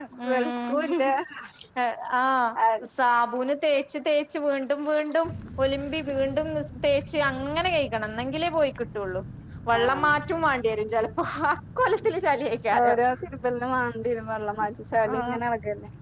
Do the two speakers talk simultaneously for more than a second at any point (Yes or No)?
No